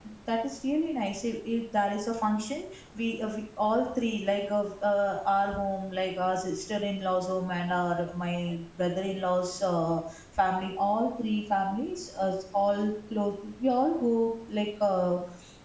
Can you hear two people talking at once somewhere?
No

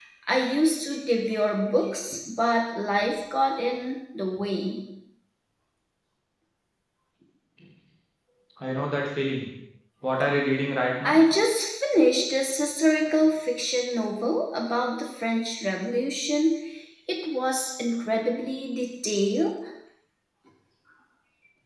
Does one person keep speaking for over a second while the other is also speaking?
No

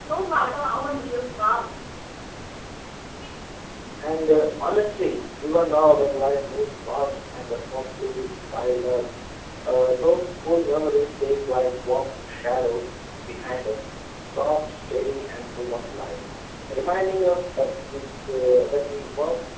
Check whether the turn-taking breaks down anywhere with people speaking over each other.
No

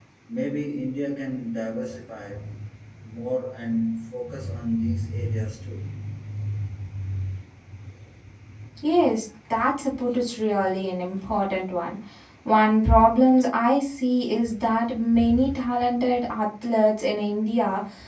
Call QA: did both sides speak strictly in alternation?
Yes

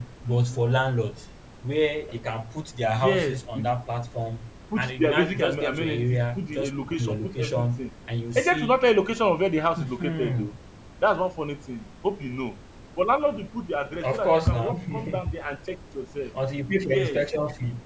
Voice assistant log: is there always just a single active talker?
No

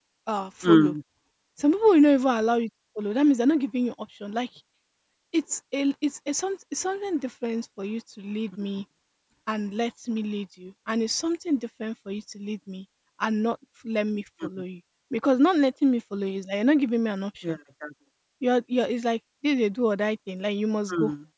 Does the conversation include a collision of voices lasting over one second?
No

